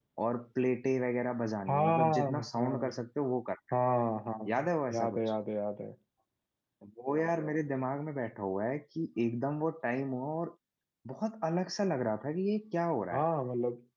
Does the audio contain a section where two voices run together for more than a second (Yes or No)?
Yes